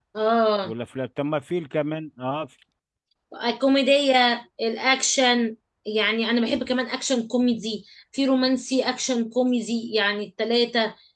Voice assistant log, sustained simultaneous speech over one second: none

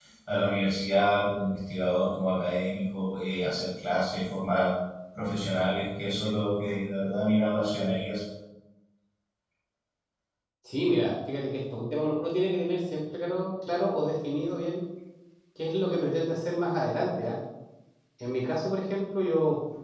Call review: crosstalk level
none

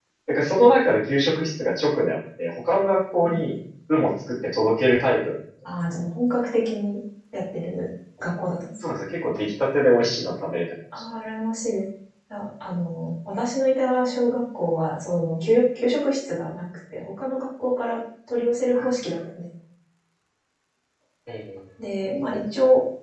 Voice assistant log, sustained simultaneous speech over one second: none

